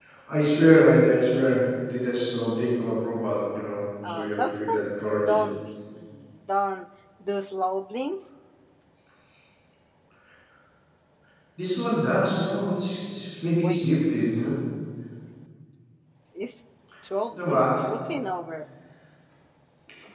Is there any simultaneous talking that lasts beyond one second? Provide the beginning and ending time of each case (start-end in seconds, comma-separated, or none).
4.1-5.4